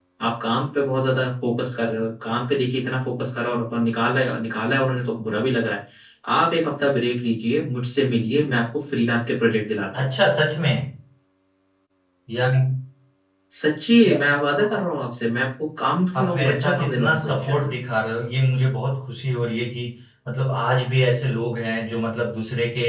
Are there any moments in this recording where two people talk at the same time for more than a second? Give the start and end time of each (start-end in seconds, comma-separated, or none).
16.2-17.7